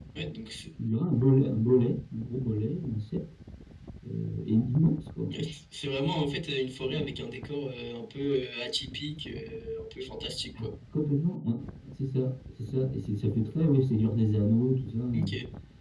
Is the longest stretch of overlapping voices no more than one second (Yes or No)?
Yes